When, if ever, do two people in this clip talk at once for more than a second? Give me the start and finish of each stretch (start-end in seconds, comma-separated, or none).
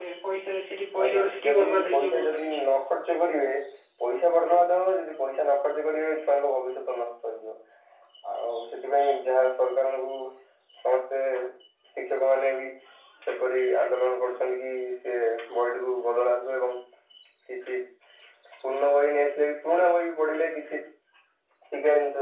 1.0-2.6